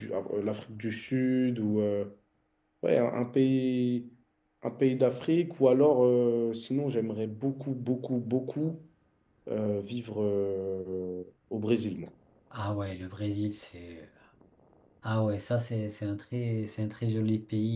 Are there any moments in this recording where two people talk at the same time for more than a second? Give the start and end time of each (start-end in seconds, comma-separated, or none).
none